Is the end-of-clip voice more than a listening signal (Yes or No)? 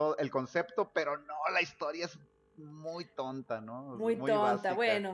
Yes